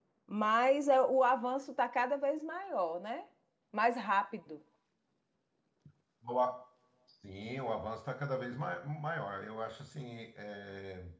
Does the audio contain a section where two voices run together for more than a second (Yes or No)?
No